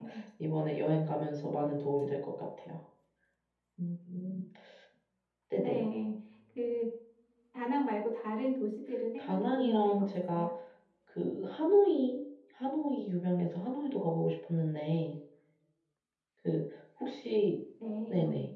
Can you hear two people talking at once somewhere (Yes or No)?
Yes